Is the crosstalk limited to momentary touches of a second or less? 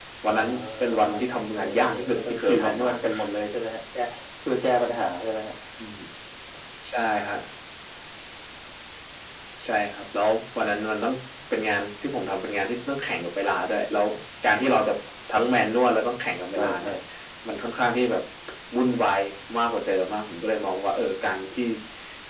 No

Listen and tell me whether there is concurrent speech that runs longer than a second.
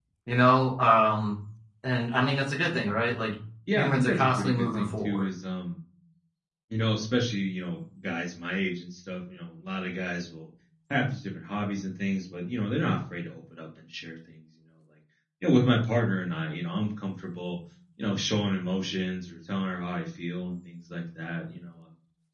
Yes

